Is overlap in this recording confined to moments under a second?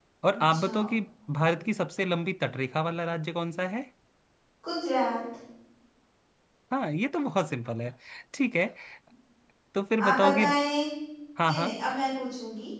Yes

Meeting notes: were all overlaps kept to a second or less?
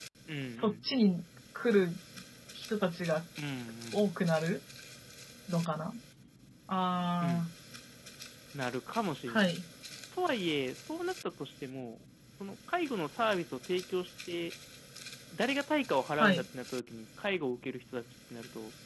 Yes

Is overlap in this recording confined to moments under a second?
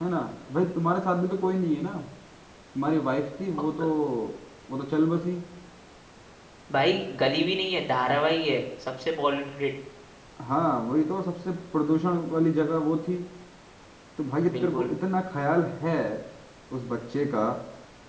Yes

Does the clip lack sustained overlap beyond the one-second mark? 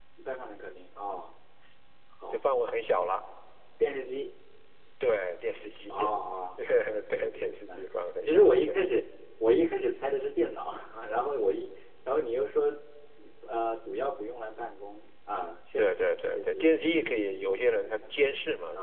No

